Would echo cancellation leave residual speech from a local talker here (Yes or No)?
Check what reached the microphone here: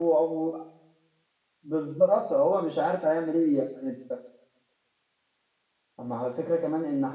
Yes